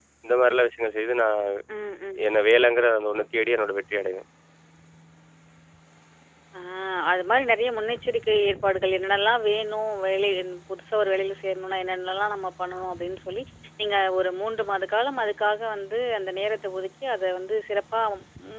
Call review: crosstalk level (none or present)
none